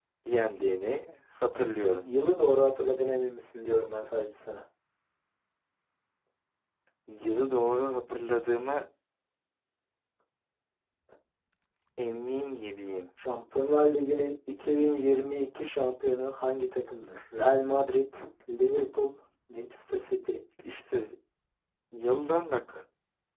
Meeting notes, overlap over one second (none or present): none